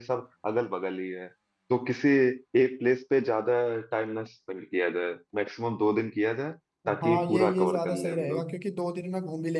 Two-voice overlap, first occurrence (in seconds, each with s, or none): 6.8 s